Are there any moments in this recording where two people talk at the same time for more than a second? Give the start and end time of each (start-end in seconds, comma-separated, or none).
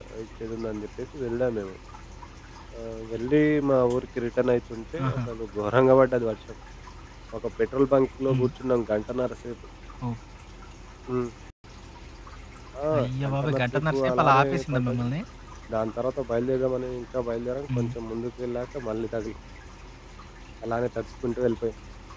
13.0-15.1